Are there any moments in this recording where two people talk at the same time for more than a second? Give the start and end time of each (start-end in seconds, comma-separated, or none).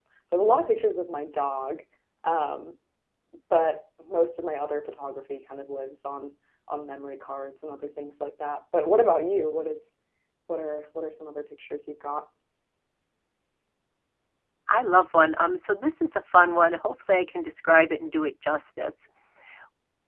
none